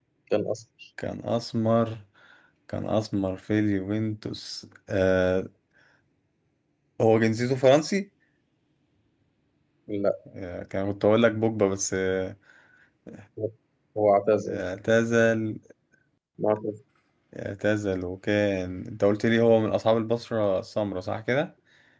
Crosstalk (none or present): none